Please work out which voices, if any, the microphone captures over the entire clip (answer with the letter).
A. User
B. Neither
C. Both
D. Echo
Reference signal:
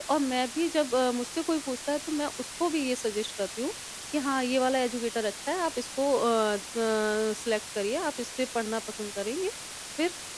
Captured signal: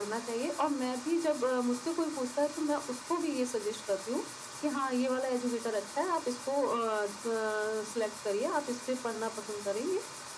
D